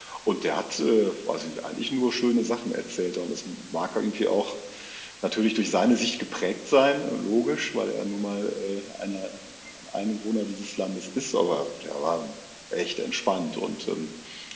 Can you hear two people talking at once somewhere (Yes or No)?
No